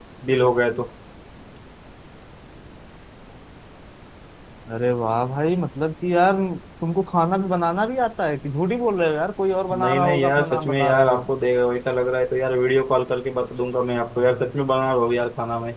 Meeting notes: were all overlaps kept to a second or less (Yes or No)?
No